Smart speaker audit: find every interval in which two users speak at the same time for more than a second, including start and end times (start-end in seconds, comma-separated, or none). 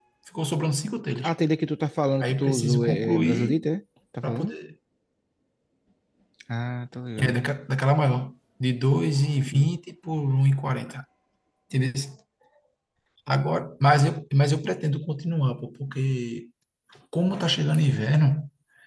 2.2-3.7